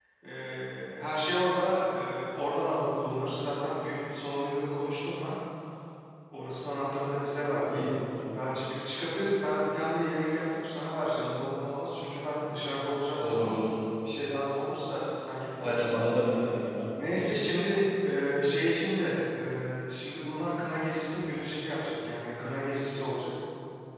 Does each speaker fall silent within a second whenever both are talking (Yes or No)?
Yes